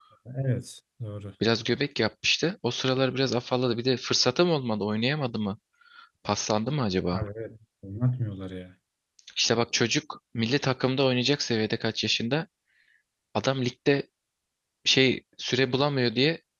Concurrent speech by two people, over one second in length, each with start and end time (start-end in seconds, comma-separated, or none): none